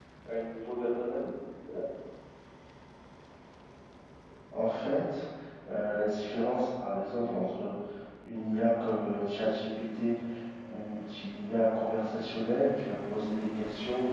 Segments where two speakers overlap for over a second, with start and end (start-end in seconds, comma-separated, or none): none